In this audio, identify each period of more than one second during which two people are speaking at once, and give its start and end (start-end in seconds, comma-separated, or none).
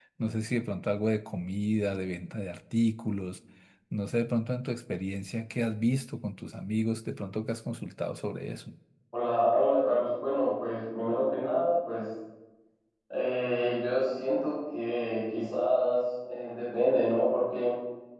none